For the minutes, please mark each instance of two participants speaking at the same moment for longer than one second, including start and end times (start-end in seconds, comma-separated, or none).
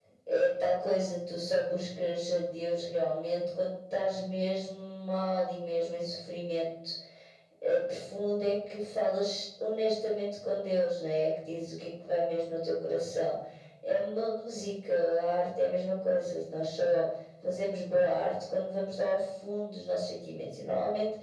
none